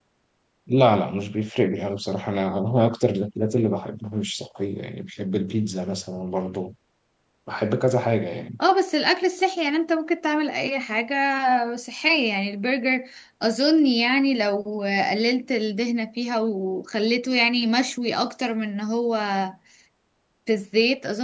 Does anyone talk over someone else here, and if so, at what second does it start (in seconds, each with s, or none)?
none